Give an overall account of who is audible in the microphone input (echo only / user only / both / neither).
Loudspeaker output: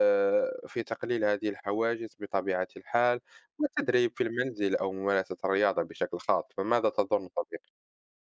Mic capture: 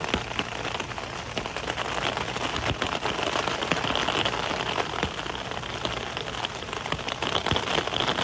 neither